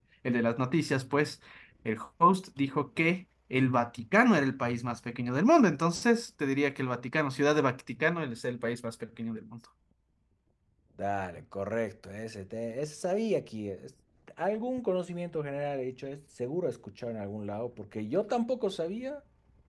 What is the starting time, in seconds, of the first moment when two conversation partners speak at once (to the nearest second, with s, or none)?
none